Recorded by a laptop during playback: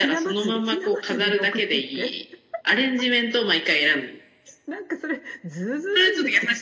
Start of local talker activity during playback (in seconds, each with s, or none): none